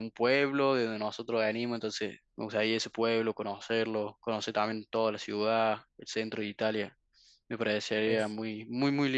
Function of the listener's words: listening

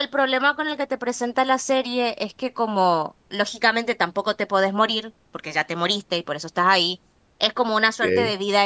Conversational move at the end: listening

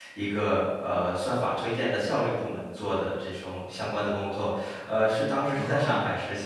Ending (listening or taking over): listening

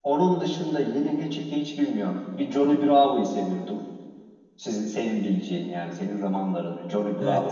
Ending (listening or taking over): taking over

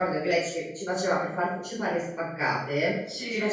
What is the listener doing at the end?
listening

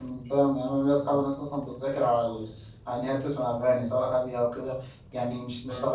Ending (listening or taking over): listening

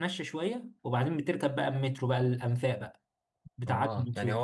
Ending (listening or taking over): taking over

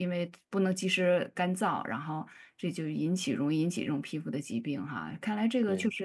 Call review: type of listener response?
listening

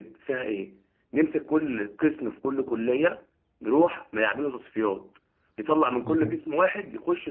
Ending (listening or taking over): listening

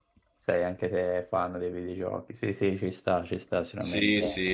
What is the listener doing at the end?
taking over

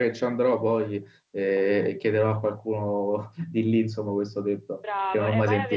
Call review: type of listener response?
taking over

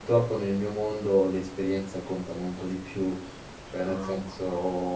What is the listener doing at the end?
listening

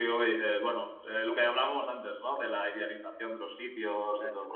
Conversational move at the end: listening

